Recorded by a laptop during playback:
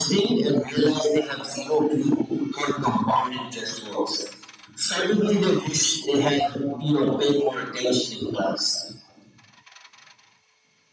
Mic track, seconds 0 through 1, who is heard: echo only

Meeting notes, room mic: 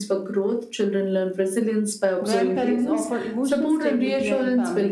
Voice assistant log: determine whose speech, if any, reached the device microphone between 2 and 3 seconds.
both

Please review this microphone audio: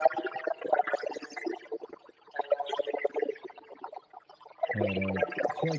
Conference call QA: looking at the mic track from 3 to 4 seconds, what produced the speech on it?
echo only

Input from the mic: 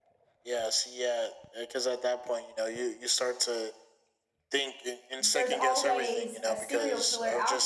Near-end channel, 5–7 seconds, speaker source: both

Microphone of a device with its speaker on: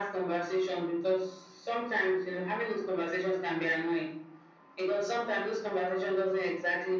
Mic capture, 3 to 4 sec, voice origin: echo only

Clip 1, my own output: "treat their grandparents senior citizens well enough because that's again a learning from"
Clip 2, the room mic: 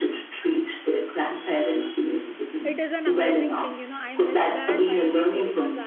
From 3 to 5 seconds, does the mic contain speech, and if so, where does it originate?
both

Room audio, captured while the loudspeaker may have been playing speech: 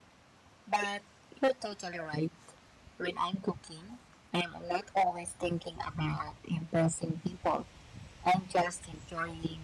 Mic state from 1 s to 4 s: echo only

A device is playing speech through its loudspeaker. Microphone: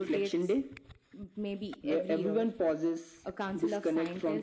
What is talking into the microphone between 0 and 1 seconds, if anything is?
echo only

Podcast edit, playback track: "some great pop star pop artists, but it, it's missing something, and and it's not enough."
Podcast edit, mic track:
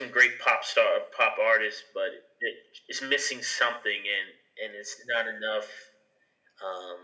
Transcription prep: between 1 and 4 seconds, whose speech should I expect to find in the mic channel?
echo only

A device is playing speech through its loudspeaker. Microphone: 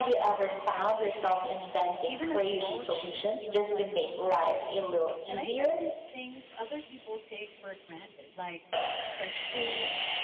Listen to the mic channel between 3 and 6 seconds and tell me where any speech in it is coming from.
both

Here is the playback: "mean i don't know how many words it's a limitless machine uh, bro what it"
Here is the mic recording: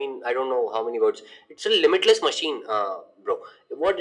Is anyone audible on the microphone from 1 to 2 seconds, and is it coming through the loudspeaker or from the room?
echo only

